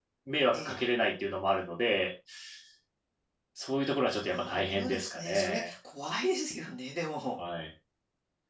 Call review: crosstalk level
present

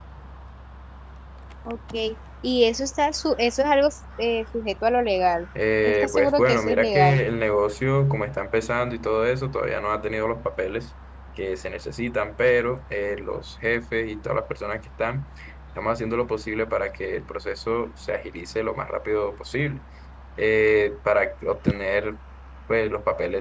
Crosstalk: present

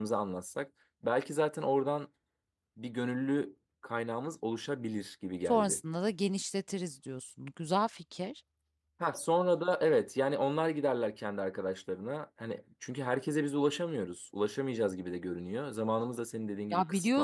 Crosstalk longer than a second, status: none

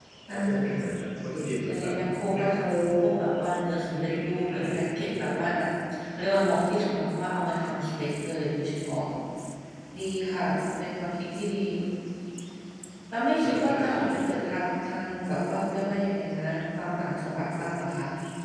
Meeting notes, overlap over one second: present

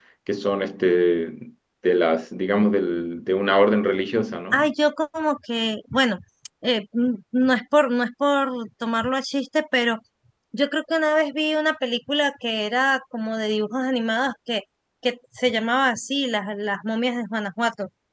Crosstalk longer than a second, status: none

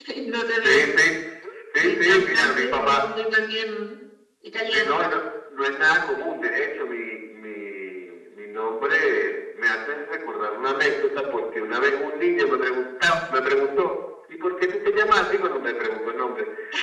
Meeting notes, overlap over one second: present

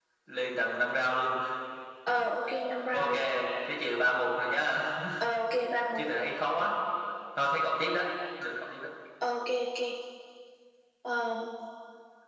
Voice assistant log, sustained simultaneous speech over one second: none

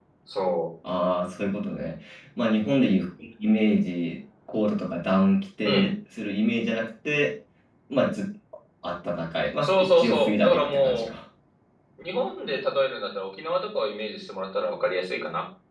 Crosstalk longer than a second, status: present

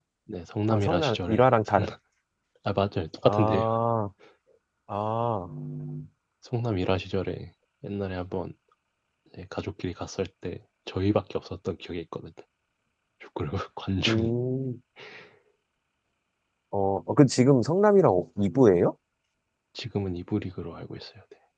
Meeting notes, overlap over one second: present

